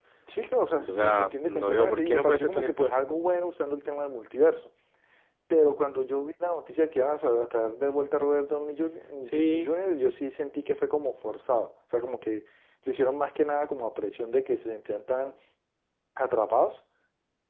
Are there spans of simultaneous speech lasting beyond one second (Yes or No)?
Yes